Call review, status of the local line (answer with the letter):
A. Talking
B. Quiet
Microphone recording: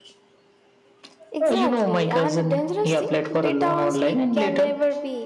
A